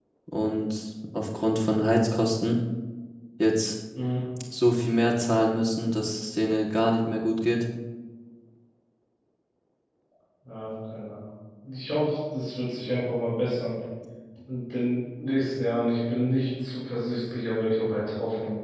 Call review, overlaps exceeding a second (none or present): none